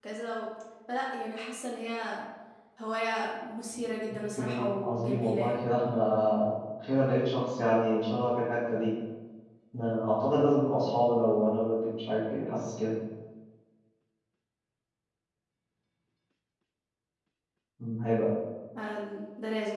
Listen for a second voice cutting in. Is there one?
Yes, from 4.3 s

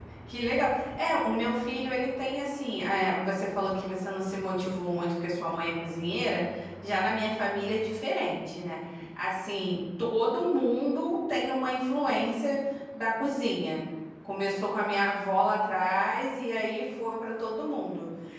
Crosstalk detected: No

